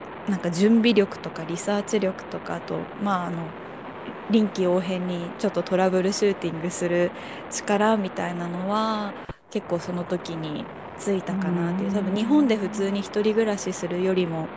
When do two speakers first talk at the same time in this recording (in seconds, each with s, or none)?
11.3 s